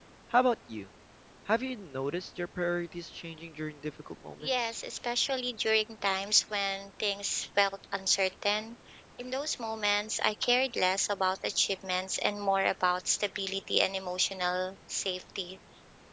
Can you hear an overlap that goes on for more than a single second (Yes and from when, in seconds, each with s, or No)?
No